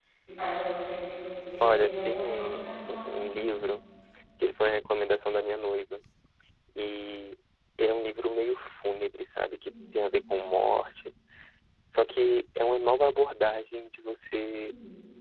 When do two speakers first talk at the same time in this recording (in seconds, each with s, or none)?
1.6 s